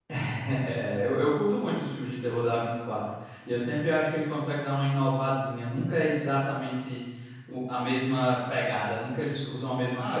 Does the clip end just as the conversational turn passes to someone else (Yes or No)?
Yes